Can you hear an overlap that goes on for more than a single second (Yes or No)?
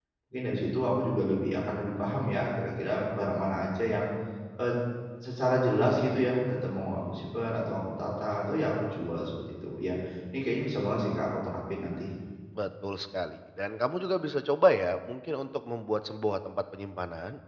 No